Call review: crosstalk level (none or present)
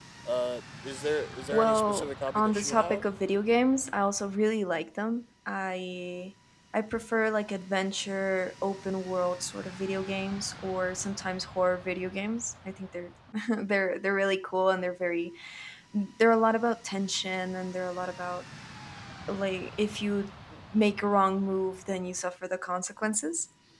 present